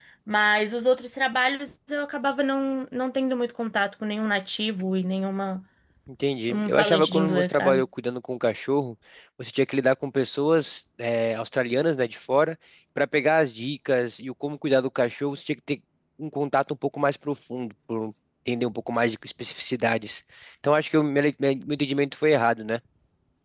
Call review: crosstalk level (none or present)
present